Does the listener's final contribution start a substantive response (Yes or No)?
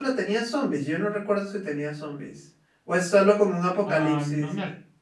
Yes